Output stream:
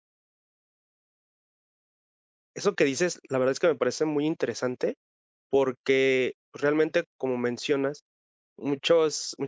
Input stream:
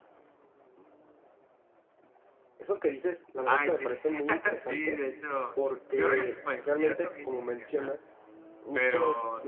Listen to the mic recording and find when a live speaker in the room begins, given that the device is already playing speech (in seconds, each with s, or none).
3.4 s